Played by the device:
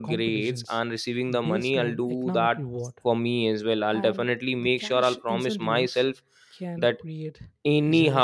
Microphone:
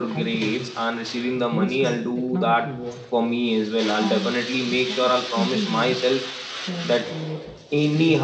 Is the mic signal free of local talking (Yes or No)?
Yes